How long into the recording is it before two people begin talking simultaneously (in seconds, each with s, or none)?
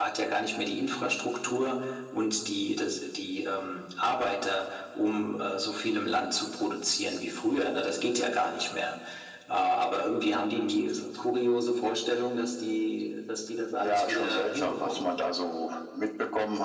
13.7 s